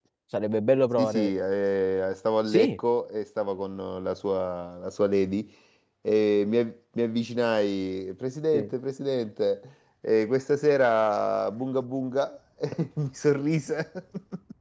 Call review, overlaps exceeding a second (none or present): none